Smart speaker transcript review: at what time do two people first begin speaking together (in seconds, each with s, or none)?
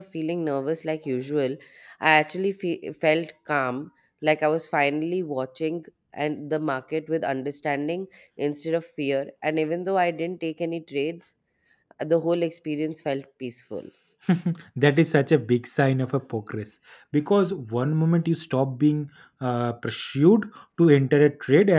none